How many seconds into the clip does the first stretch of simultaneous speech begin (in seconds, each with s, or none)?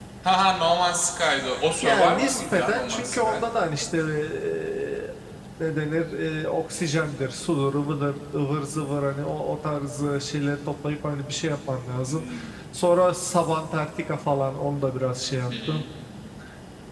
1.8 s